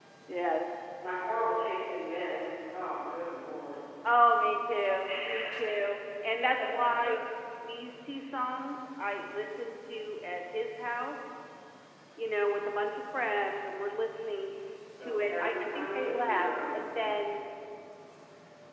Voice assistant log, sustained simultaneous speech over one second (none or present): present